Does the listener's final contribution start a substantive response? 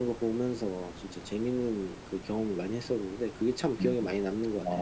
Yes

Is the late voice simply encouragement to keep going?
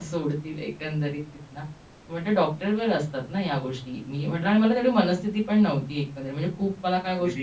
Yes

